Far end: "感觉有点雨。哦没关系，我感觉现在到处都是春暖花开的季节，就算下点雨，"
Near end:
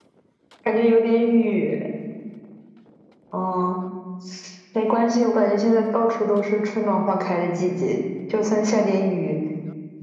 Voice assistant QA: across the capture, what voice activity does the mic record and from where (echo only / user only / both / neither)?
echo only